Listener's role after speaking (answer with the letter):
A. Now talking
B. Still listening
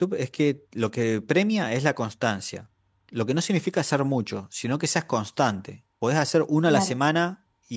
B